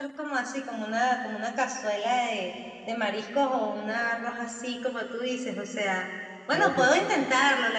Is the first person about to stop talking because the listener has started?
No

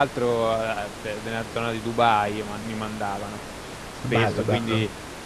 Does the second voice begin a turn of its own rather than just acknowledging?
No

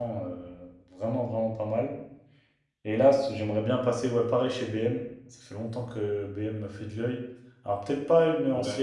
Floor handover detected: No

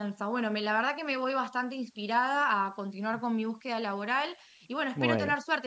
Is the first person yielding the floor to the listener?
No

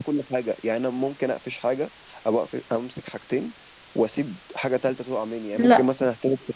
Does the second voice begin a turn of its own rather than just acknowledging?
No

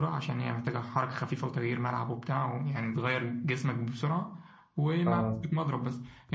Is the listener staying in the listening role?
Yes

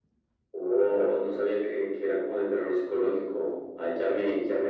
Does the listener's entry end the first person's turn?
No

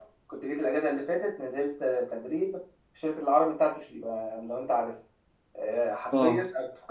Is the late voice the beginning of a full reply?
No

